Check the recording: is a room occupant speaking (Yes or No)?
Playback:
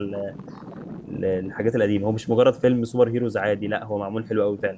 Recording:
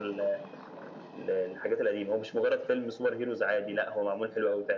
No